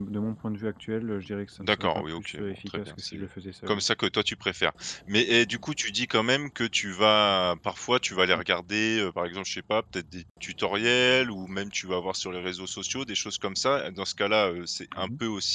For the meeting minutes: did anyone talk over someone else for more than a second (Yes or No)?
Yes